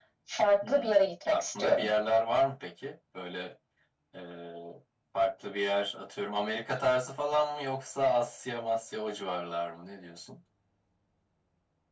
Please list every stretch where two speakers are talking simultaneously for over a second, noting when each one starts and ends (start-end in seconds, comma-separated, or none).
0.7-1.9